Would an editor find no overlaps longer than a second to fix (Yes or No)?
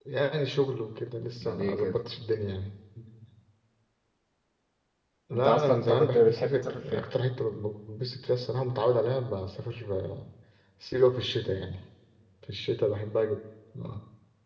No